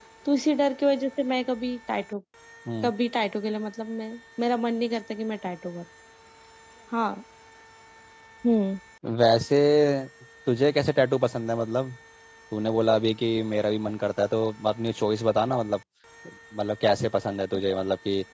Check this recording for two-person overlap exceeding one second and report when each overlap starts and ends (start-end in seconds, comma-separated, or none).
none